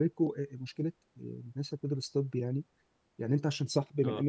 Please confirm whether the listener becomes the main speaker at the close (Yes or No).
No